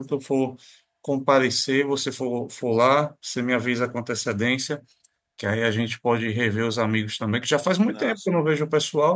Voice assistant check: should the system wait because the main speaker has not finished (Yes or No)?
Yes